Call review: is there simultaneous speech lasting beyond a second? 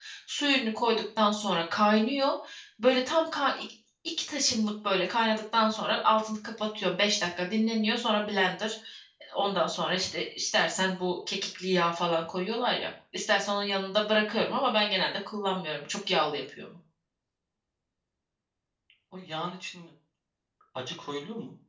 No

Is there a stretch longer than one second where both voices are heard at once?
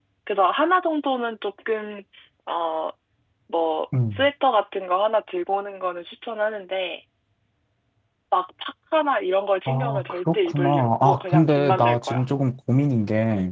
Yes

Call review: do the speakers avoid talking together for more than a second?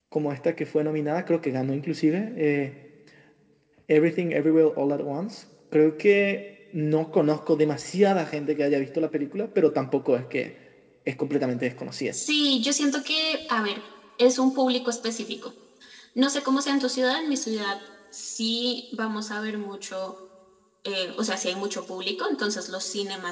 Yes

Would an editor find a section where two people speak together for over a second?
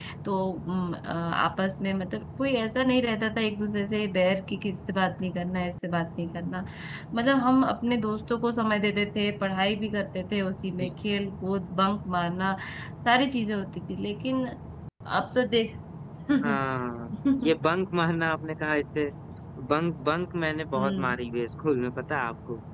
No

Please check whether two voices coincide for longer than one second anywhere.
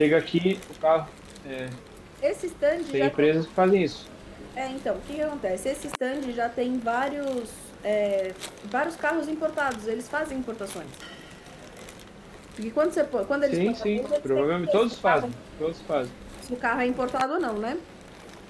Yes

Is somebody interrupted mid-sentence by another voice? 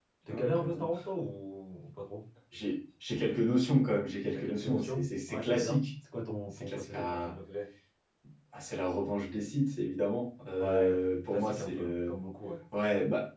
Yes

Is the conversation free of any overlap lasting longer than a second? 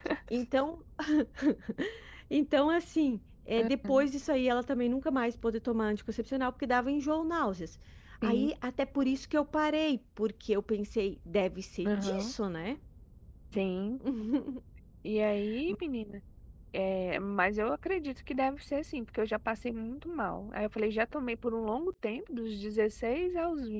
Yes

